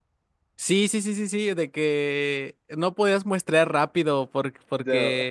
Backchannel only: Yes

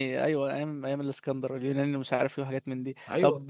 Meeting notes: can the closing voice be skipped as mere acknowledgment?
Yes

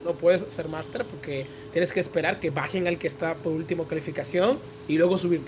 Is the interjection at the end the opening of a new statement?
No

